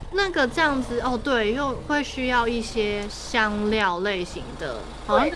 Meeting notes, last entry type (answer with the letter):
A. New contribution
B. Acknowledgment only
A